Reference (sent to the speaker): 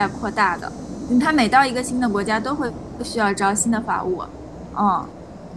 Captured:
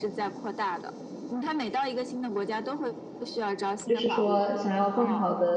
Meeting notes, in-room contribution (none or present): present